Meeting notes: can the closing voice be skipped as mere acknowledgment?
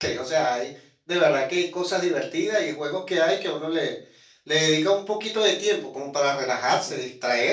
Yes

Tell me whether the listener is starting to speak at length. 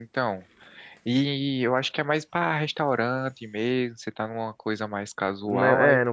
Yes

